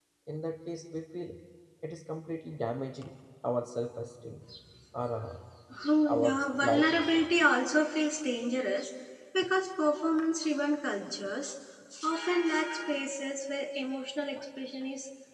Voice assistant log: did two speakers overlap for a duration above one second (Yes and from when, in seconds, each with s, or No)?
Yes, from 6.1 s